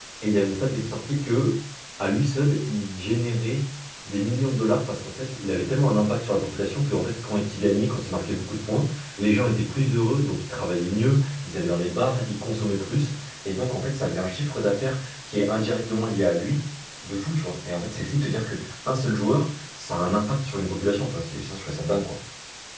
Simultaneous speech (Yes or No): No